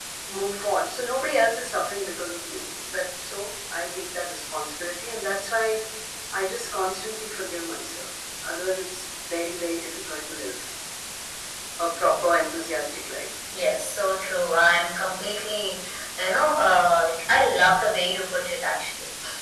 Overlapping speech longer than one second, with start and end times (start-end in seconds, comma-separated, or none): none